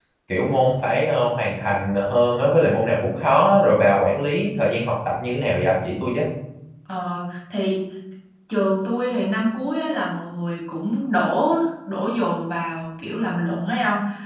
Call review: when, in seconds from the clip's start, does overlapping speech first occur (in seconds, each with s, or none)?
none